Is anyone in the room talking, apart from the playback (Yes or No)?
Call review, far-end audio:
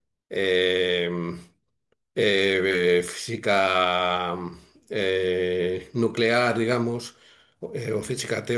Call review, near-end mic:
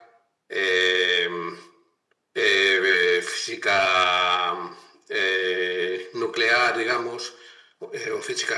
No